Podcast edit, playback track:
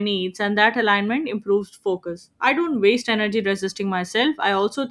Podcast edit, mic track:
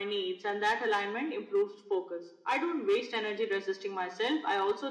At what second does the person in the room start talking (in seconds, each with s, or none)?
none